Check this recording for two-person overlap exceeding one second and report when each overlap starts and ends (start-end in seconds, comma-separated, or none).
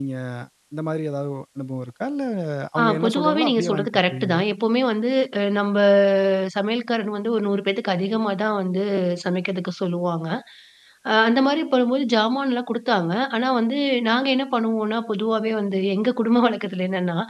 2.8-4.4